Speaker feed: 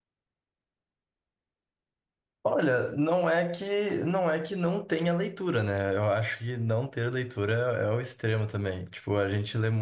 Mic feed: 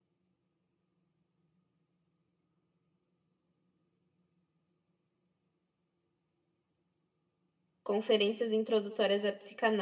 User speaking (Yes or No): Yes